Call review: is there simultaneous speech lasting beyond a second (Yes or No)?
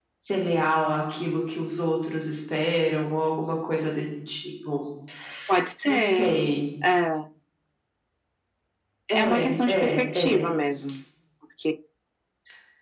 Yes